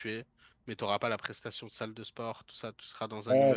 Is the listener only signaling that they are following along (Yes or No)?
No